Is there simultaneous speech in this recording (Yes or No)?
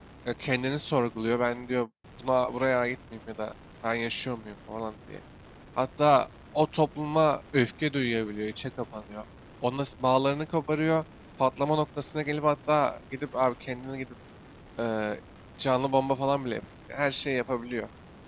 No